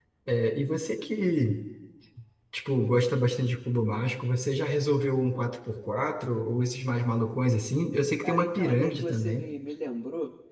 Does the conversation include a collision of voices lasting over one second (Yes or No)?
Yes